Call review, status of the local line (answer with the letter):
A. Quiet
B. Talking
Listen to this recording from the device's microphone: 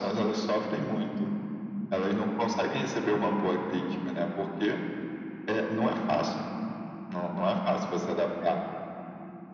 A